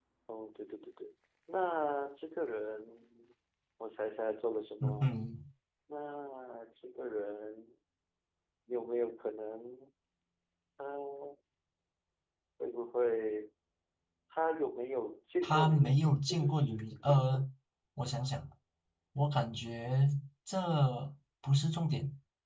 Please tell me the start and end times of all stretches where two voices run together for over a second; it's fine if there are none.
15.4-17.4

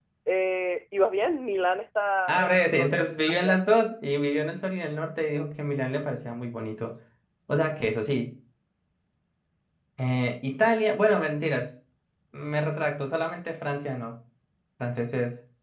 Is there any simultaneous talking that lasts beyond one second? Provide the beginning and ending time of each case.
2.3-3.6

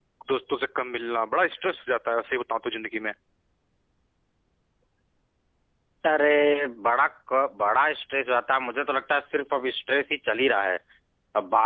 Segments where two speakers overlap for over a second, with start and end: none

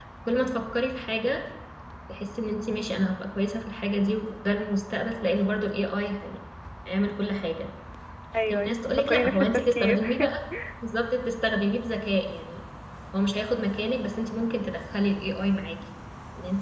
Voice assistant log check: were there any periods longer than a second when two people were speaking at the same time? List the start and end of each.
8.5-10.0

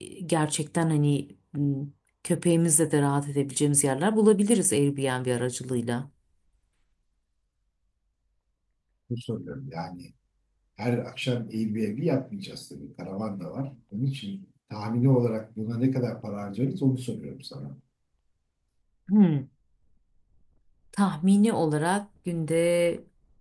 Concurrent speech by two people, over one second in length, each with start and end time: none

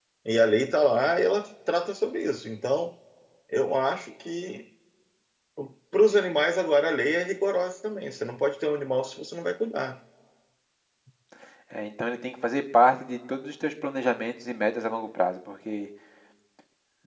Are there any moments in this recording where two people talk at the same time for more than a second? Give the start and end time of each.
none

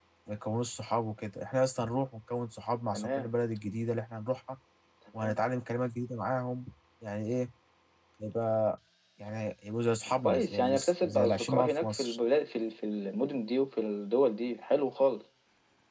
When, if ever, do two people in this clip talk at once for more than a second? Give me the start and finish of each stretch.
10.2-12.2

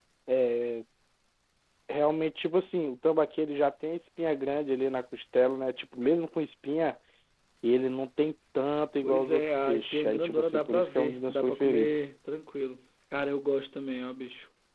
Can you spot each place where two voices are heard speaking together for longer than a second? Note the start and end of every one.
9.0-12.0

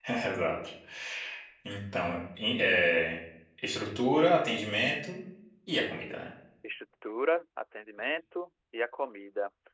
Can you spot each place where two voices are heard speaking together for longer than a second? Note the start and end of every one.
none

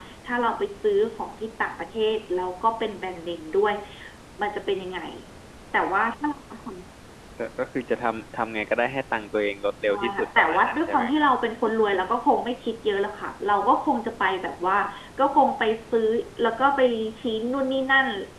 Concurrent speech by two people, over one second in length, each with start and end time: 9.9-11.3

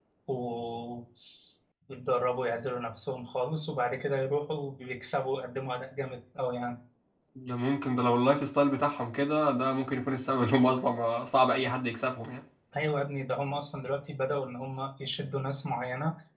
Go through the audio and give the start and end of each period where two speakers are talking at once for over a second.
none

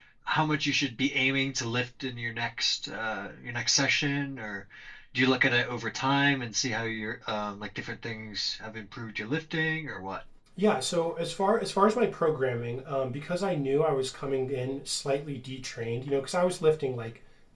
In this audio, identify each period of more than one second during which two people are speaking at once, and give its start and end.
none

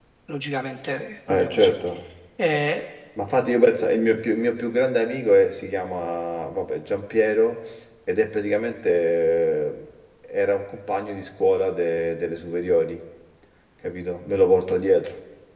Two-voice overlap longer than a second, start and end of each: none

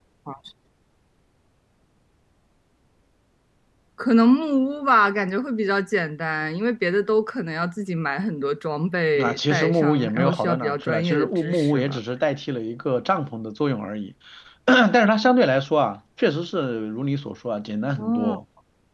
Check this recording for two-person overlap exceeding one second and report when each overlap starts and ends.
9.2-12.0

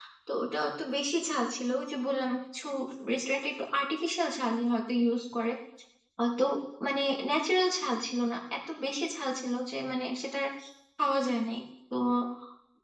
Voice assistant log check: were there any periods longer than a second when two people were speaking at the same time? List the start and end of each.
none

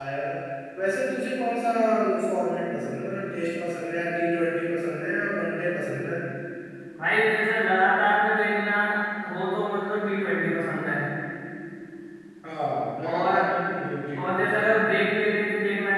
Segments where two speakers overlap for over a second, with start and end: none

